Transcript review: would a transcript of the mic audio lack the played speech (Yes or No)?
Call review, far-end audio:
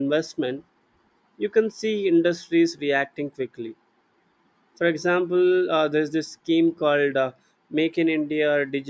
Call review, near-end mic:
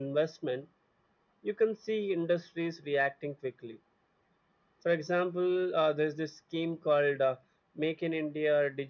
No